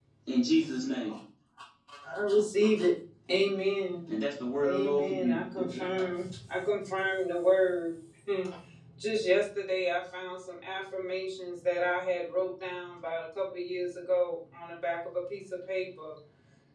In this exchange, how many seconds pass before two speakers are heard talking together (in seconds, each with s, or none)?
4.6 s